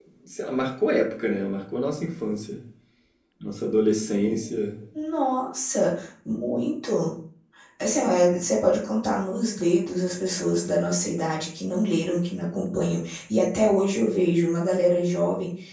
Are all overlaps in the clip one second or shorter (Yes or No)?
Yes